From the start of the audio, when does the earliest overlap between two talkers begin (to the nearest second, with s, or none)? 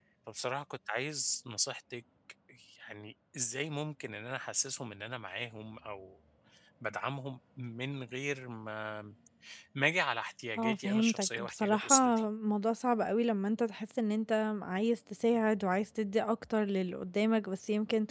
11 s